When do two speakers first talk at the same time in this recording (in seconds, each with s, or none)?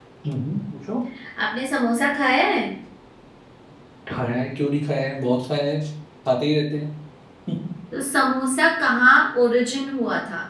none